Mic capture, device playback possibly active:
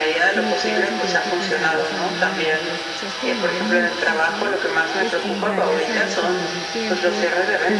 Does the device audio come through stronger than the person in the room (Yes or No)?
Yes